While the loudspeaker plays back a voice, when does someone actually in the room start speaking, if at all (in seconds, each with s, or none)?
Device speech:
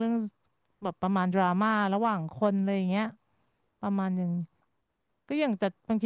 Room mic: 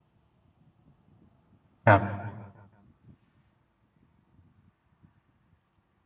1.9 s